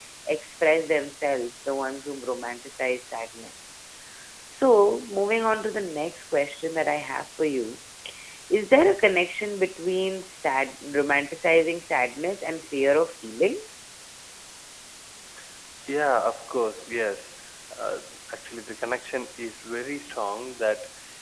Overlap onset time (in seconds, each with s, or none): none